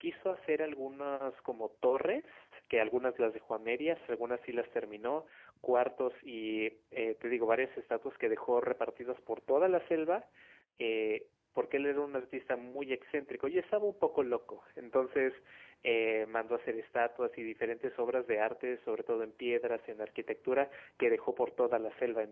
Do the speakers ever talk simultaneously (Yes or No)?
No